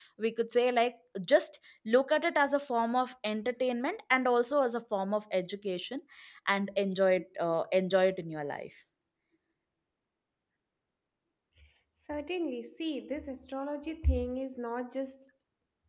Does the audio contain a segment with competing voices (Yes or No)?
No